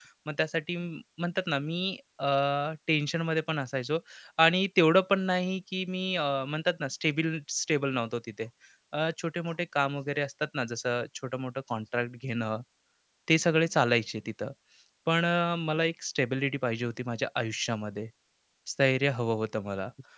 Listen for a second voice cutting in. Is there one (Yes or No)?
No